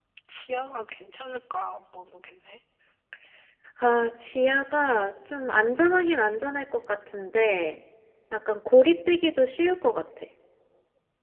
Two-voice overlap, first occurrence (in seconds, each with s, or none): none